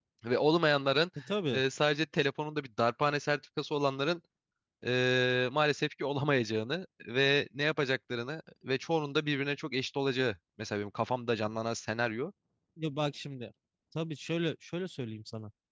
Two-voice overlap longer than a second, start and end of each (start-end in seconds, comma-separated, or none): none